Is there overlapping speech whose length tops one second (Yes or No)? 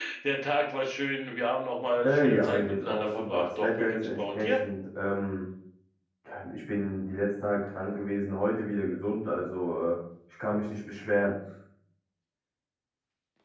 Yes